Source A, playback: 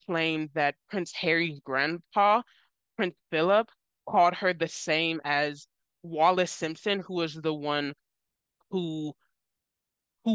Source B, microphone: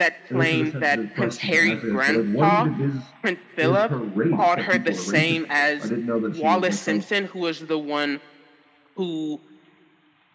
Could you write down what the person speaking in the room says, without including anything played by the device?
and this is a sensitive question to ask, I guess. But like, what even is is her race that people are racist against? I didn't know that she was like oh,

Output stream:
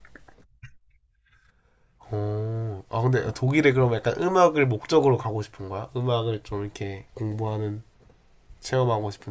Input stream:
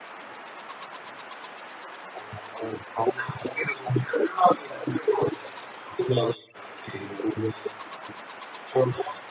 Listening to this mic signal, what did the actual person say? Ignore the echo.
none

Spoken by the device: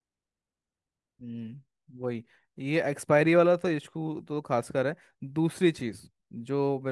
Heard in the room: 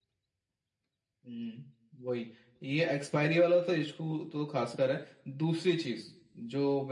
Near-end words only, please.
none

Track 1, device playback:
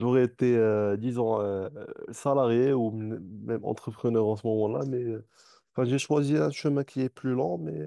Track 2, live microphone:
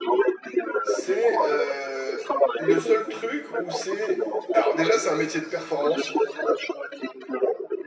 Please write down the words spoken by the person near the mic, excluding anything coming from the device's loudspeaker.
c'est euh, le seul truc où c'est... Alors déjà, c'est un métier de performance.

